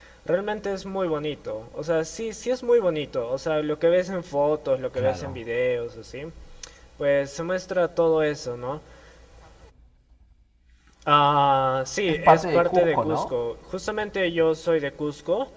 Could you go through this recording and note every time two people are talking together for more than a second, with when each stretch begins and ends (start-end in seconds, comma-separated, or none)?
12.1-13.3